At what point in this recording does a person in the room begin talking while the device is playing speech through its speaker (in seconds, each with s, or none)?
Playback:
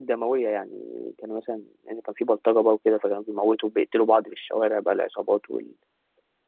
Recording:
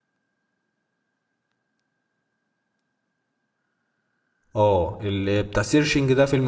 4.6 s